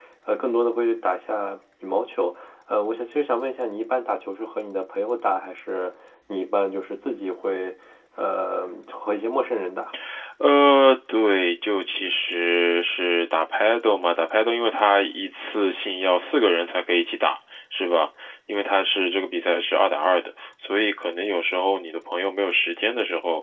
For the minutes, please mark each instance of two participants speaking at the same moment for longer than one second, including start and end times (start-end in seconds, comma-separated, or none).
none